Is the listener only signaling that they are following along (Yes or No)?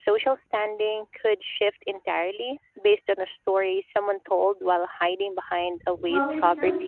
No